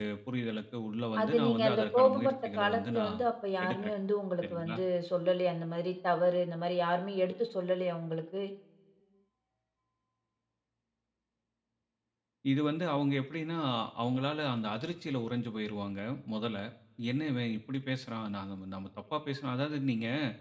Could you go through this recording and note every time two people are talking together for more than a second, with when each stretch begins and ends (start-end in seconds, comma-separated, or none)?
1.2-3.2